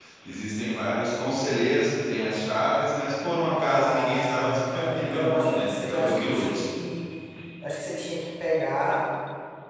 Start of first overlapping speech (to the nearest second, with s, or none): 3 s